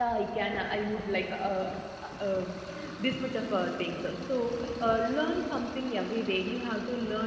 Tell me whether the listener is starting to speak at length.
No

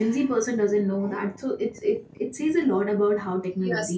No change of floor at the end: No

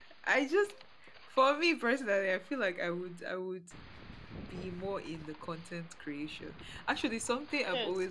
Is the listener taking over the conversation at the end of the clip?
Yes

